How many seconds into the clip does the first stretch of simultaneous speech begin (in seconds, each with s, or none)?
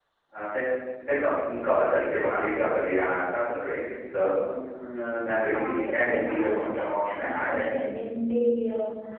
5.5 s